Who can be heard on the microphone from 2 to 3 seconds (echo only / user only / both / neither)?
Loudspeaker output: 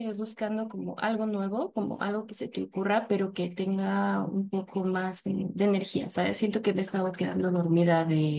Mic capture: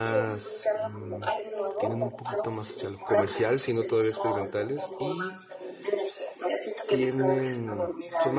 both